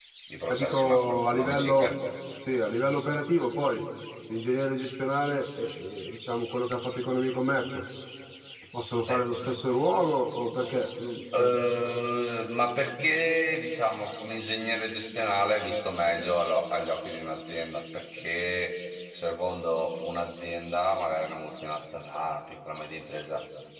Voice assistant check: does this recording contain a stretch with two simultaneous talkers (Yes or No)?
Yes